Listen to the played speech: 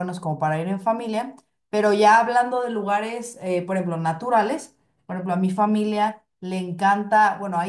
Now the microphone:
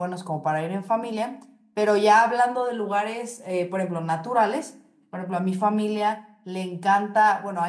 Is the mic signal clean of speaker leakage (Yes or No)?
No